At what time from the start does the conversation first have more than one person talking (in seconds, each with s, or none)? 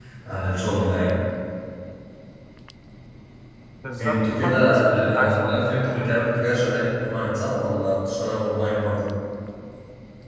4.0 s